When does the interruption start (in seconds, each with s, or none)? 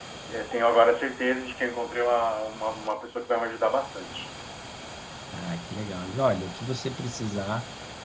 none